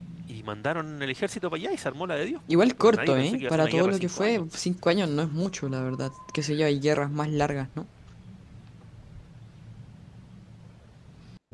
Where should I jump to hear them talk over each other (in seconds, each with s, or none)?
2.5 s